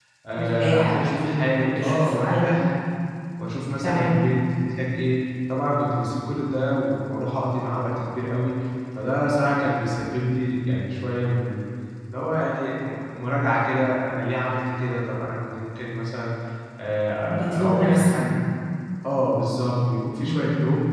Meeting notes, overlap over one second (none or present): present